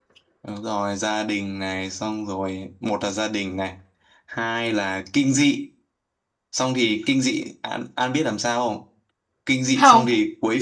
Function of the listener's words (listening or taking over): listening